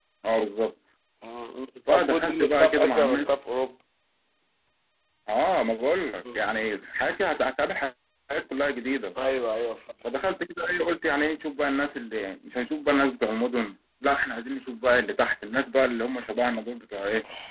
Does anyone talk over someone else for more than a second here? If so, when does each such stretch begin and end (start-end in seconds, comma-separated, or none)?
1.9-3.3